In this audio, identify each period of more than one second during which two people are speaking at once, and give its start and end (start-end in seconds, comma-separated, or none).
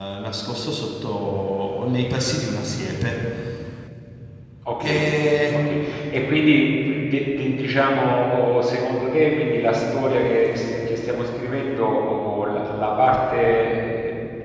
none